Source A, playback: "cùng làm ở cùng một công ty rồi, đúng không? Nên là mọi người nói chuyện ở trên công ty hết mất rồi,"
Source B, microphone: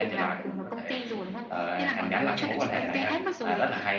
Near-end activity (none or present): present